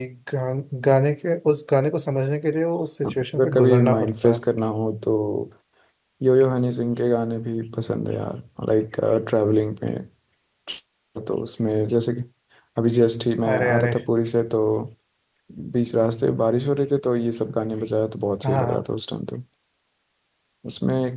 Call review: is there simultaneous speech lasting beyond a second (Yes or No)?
Yes